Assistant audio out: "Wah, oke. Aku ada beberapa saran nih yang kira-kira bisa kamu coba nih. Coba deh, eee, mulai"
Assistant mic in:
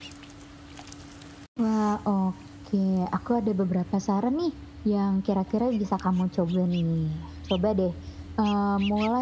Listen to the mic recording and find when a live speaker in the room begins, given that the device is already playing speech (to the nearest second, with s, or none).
none